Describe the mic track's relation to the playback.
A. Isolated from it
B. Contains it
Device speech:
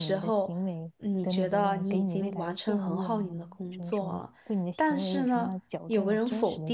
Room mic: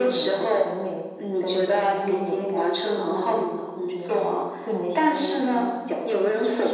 B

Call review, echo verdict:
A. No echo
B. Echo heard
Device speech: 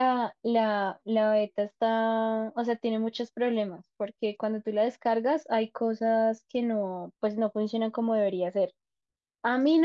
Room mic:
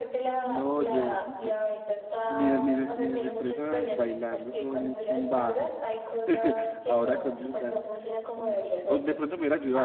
B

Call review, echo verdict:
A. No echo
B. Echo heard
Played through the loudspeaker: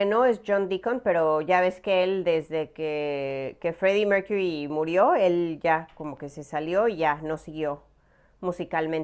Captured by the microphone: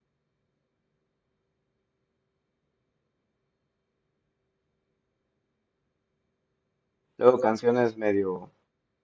A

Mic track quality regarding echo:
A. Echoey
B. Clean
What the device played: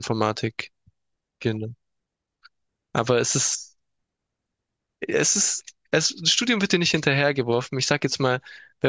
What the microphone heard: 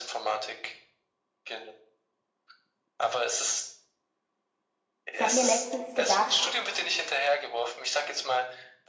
A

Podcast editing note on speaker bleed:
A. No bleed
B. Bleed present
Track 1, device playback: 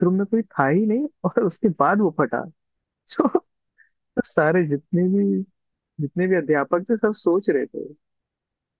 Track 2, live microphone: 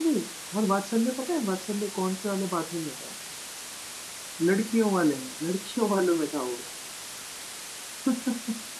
A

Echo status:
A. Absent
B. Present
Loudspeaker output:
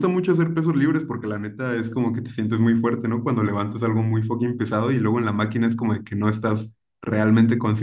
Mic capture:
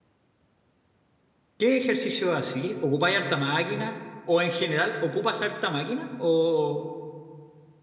A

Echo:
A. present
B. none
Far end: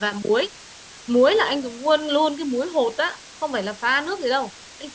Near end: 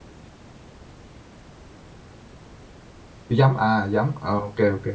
B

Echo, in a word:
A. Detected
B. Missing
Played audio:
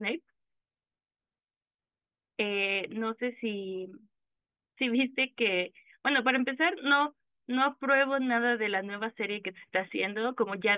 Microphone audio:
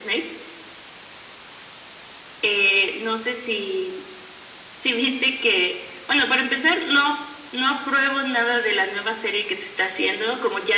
A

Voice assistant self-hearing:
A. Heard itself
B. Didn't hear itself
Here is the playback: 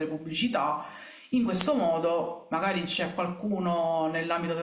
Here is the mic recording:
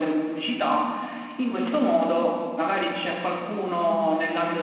A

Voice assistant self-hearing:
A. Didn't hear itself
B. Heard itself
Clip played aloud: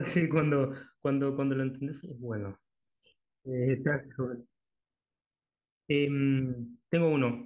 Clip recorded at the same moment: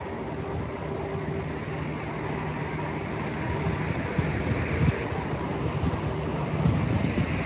A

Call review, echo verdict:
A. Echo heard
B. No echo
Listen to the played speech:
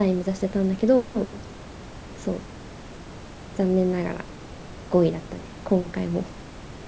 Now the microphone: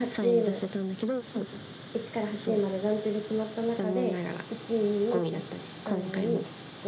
A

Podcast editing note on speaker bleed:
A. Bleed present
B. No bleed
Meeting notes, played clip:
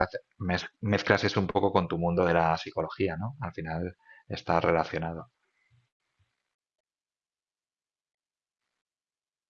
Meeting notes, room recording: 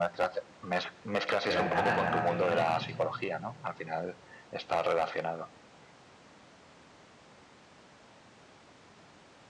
A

